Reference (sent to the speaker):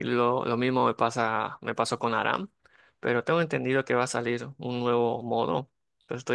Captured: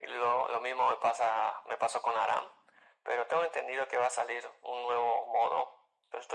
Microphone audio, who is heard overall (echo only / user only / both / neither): echo only